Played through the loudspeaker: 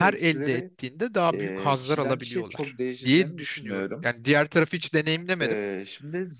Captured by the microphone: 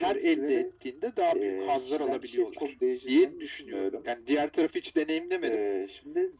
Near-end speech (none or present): none